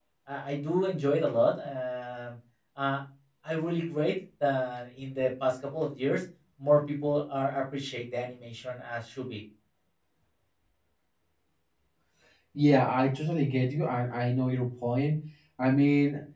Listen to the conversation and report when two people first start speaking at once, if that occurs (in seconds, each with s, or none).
none